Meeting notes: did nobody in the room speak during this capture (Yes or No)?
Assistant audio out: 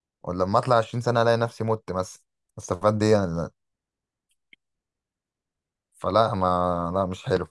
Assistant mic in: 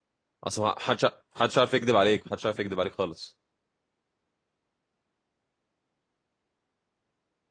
No